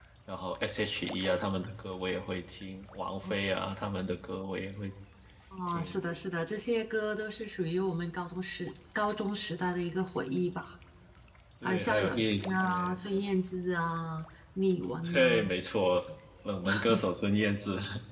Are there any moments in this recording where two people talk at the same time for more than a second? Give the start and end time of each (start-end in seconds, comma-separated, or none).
11.6-13.0